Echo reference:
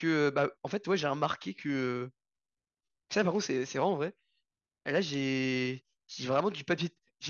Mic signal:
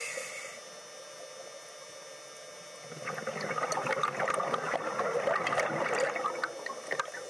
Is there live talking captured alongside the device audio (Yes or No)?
No